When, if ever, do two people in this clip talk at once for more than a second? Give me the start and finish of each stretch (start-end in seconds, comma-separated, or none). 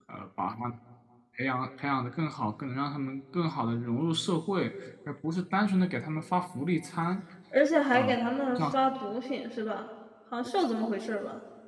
none